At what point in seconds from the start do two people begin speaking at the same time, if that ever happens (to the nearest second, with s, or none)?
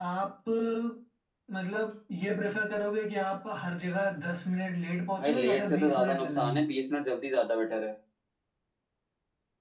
5 s